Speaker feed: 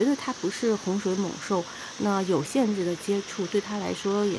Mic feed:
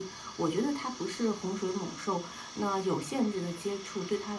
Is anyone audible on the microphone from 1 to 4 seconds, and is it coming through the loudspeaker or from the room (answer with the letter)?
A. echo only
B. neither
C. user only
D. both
A